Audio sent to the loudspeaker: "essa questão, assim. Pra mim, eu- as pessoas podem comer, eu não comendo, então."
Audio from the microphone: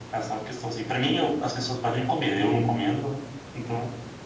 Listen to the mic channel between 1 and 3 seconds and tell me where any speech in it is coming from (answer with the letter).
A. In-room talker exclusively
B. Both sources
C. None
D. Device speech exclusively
D